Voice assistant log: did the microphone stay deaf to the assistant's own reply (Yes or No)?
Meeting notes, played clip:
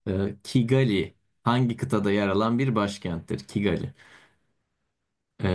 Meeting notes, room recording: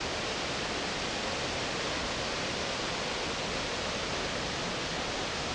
Yes